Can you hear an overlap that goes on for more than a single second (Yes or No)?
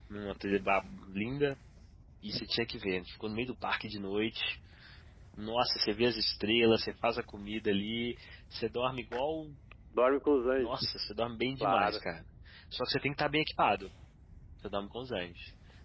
No